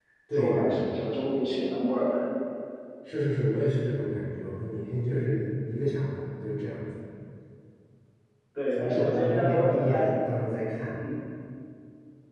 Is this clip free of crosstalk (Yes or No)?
No